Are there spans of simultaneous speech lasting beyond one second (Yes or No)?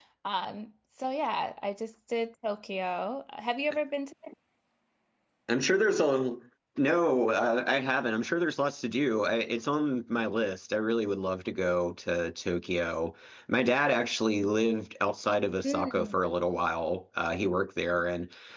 No